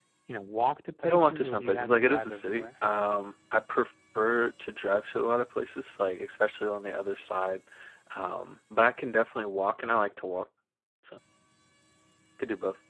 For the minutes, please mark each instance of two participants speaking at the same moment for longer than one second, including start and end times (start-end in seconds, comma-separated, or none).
1.0-2.7